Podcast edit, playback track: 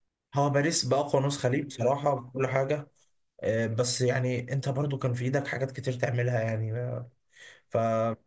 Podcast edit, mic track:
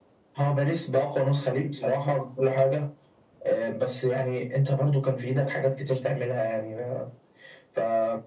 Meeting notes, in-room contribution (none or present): none